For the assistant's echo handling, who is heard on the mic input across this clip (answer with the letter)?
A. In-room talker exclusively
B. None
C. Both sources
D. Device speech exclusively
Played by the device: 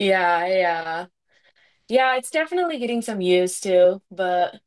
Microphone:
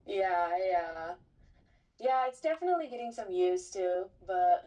D